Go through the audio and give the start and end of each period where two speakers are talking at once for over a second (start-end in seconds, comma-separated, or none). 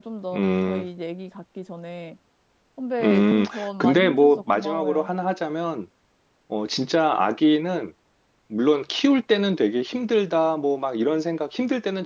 3.0-5.1